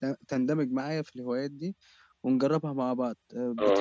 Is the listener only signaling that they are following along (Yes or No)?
No